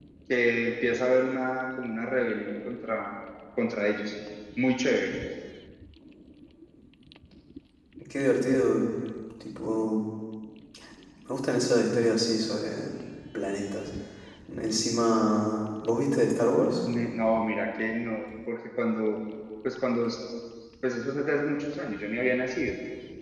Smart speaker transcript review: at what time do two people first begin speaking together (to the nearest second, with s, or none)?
none